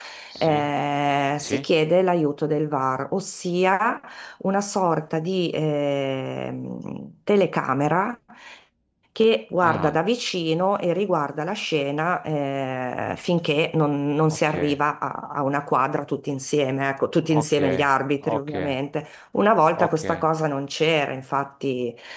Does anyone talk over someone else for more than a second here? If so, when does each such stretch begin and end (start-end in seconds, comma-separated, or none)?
none